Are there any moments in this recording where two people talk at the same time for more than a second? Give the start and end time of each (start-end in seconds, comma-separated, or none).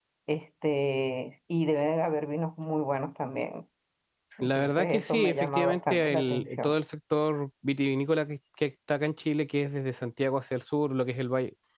4.4-6.8